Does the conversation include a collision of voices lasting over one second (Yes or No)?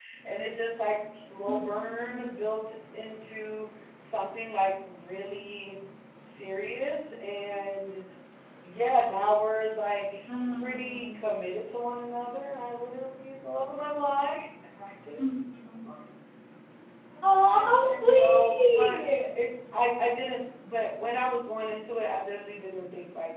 Yes